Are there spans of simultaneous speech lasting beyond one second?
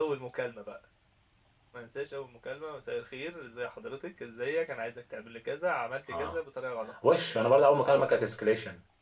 No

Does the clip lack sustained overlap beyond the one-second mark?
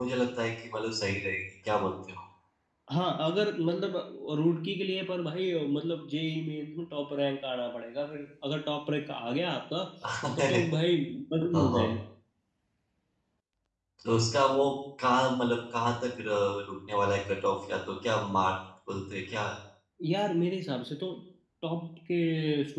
Yes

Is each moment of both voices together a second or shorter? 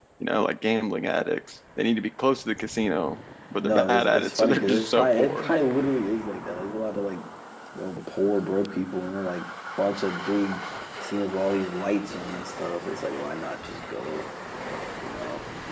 No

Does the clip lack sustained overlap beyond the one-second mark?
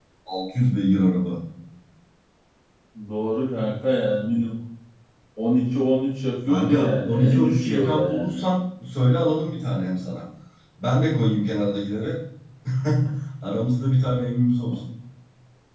No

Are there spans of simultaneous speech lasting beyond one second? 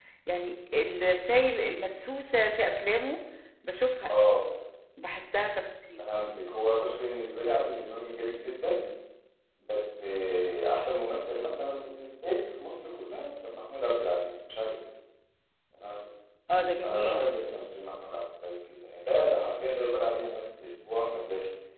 No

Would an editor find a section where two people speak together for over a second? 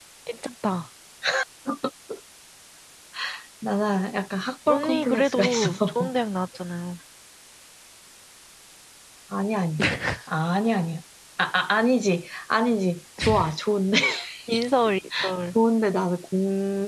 Yes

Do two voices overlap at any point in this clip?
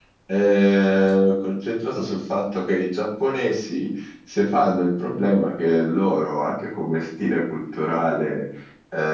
No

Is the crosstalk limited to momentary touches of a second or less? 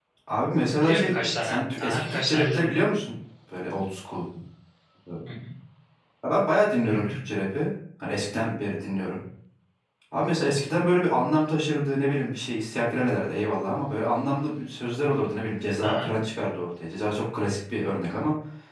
No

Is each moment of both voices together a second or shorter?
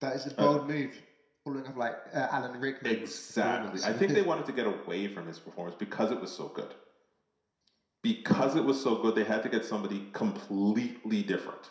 No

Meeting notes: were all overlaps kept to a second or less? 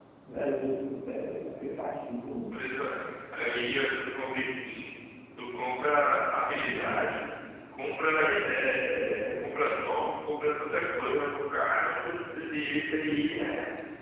Yes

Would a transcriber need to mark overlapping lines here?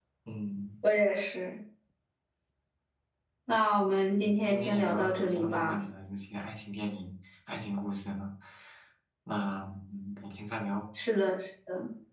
Yes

